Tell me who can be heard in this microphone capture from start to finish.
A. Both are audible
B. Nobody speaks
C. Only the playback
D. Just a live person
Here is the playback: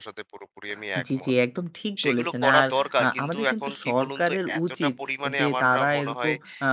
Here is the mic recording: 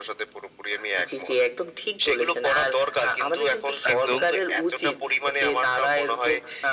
A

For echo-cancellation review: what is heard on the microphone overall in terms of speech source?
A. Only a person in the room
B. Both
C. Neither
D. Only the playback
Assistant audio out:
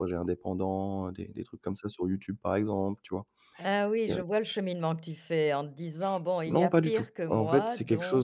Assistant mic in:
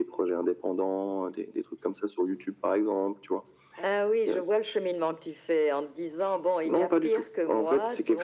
D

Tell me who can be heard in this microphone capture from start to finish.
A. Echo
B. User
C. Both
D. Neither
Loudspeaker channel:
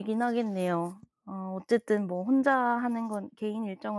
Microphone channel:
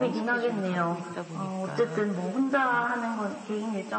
C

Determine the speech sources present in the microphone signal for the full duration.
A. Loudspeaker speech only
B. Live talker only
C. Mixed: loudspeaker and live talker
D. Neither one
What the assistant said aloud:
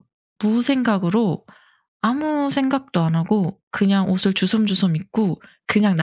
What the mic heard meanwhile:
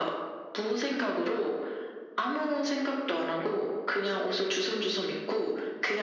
A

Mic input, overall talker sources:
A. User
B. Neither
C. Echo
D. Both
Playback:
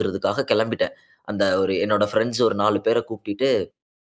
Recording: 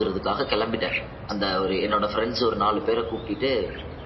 C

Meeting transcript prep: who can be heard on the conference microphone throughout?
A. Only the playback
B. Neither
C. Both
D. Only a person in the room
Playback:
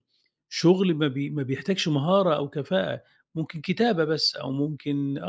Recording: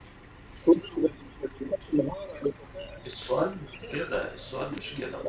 C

